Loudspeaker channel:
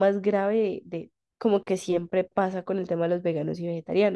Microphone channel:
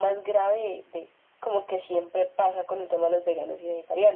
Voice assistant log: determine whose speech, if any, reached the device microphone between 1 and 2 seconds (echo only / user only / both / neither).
echo only